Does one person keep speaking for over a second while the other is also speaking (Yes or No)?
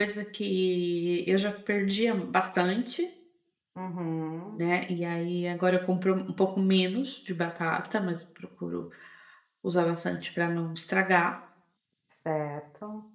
No